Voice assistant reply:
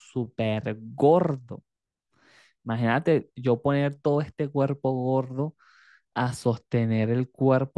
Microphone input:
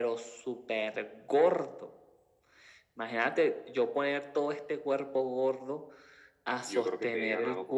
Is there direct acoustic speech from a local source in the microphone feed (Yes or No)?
Yes